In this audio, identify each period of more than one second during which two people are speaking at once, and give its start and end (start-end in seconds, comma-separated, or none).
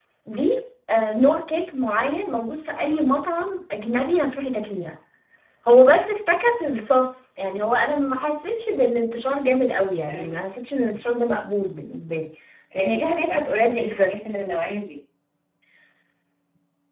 12.8-14.2